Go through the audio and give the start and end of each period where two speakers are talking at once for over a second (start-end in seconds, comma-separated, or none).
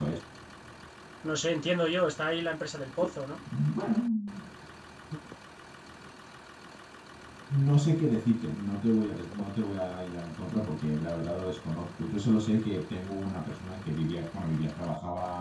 none